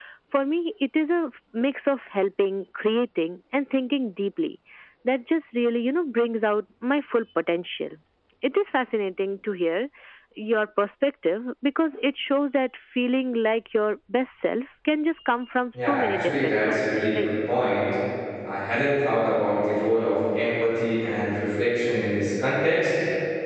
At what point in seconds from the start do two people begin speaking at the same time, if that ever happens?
15.7 s

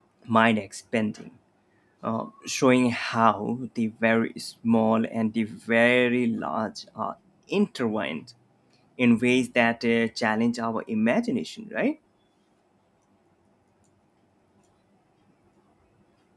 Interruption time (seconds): none

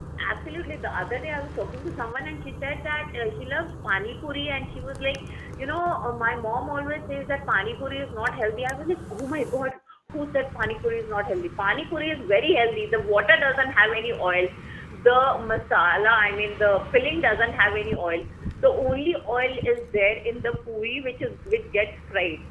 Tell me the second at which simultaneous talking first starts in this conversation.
none

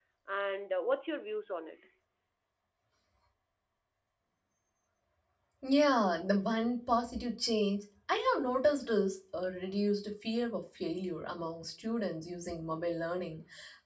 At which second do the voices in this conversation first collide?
none

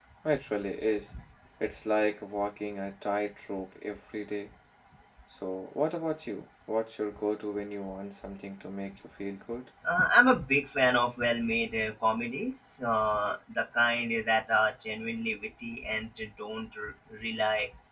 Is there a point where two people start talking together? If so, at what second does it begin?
none

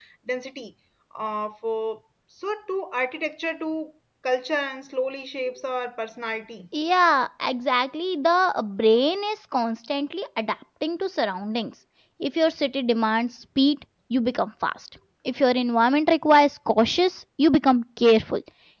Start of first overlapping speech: none

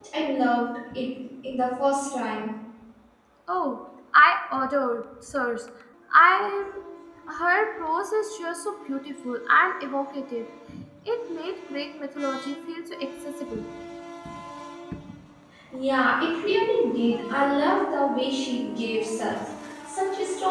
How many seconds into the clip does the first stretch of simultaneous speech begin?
none

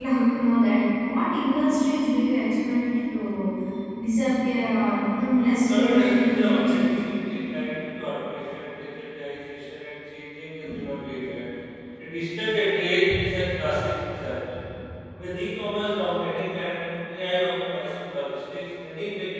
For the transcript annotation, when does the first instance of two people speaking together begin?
5.1 s

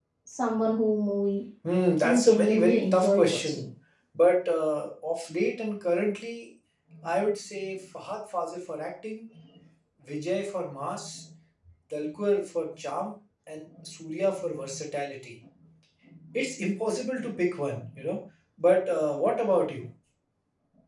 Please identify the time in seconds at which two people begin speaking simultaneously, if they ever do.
2.0 s

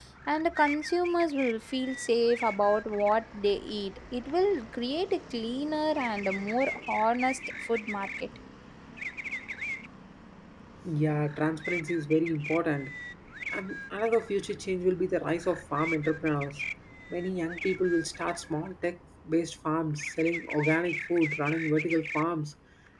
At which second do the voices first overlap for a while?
none

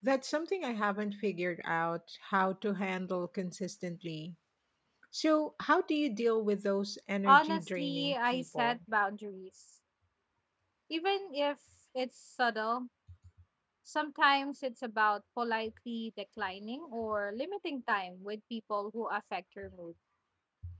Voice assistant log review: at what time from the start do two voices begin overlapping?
7.2 s

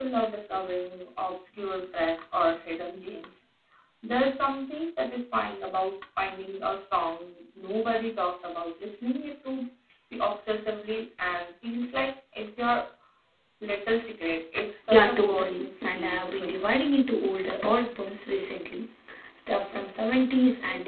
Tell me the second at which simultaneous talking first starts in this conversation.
14.9 s

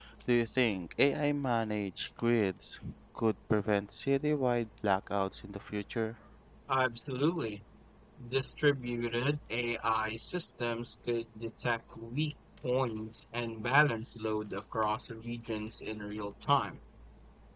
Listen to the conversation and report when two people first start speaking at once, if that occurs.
none

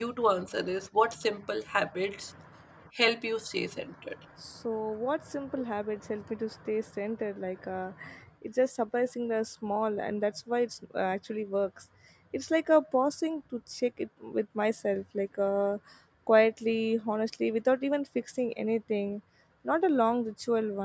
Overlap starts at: none

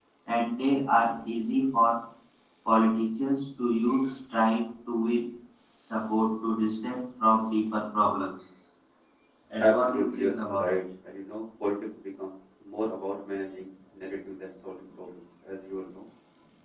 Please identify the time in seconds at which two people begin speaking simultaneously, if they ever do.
9.6 s

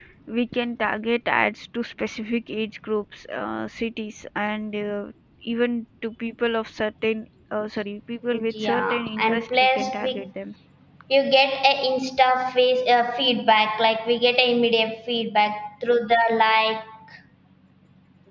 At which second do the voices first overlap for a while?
8.6 s

